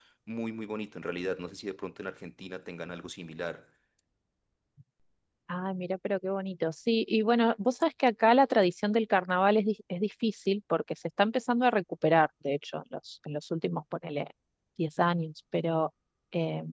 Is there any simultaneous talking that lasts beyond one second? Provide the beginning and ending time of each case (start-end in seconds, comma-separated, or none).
none